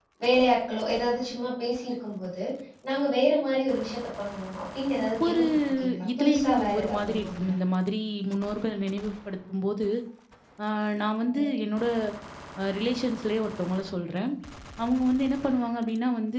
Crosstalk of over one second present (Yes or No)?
Yes